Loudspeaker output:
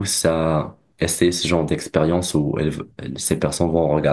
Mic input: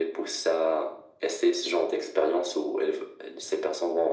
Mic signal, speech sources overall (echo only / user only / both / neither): echo only